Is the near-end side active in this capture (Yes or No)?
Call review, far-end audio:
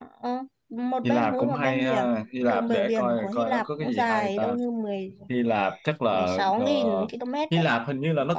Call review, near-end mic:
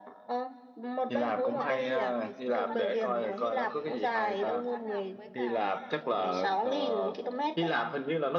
Yes